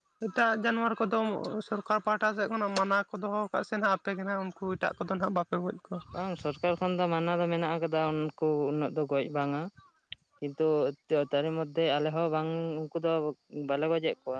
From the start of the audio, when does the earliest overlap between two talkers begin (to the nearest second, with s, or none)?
none